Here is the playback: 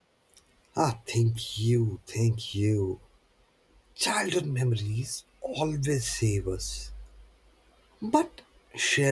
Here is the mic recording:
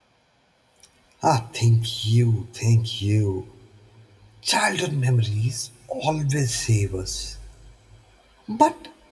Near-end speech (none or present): none